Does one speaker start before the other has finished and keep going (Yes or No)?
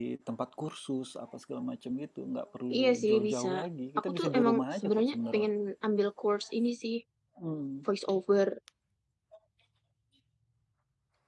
Yes